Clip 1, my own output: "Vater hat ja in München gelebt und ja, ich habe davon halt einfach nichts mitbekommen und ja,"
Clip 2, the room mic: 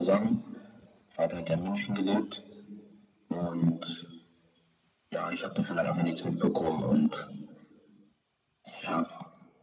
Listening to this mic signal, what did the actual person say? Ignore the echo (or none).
none